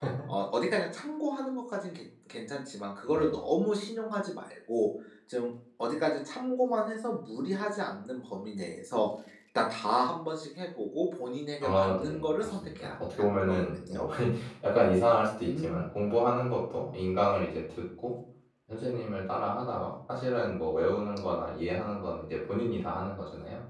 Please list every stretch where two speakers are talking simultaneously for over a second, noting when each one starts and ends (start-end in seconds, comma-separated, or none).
11.6-14.0